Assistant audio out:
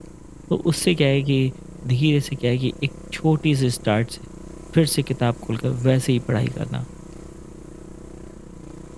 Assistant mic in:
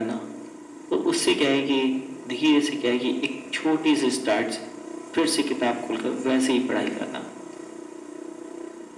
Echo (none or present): present